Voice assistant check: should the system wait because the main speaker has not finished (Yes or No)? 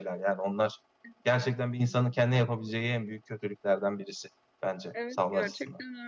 No